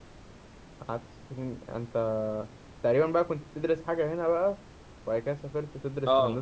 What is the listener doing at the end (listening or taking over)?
taking over